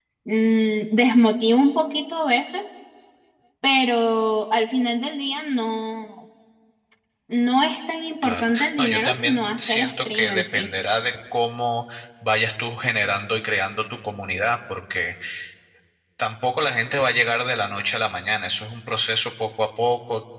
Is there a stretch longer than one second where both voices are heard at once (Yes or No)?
Yes